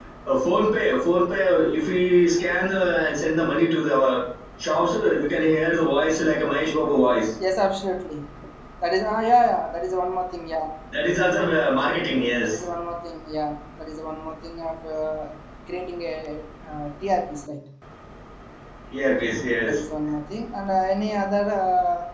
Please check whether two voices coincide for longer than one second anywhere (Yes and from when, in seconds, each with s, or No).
No